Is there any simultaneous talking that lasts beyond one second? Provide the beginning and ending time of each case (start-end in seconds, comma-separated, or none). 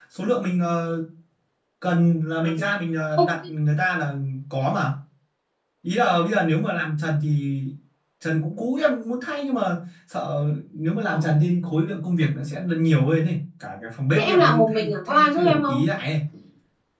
14.1-15.8